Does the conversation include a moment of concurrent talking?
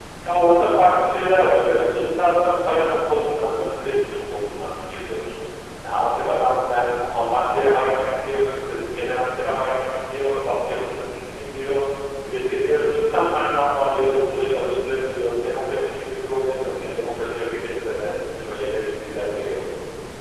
No

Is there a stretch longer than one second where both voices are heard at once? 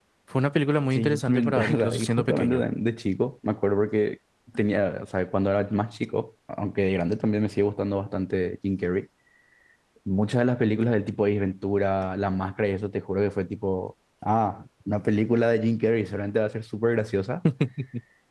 Yes, from 0.9 s

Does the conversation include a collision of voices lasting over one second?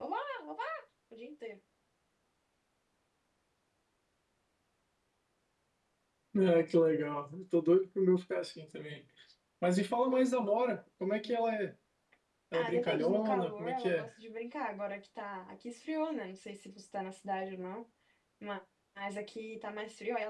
Yes, from 12.5 s

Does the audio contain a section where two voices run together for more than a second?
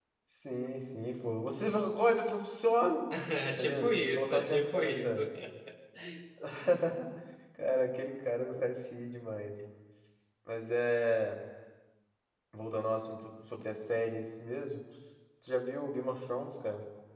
Yes, from 3.5 s

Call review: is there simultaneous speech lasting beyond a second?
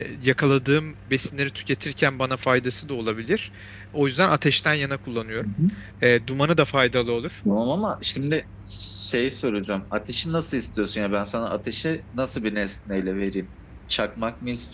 No

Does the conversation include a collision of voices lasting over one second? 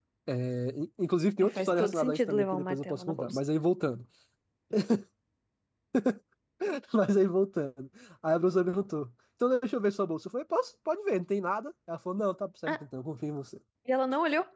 Yes, from 1.4 s

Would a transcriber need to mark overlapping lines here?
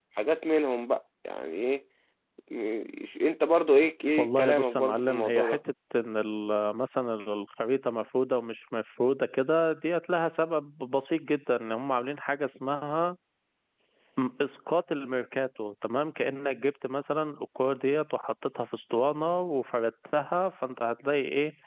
Yes, from 4.2 s

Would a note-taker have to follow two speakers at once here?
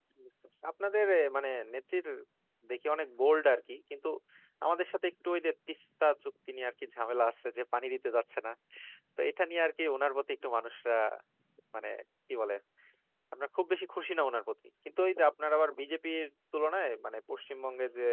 No

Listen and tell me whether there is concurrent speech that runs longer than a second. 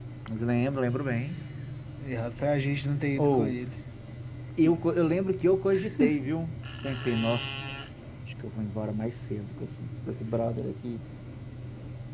No

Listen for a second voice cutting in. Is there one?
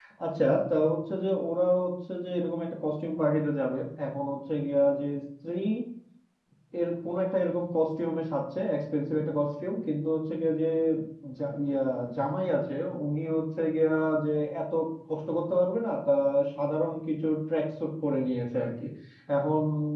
No

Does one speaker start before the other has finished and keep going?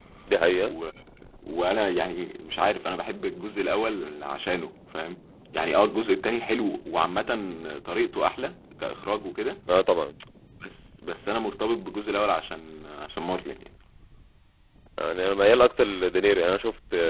No

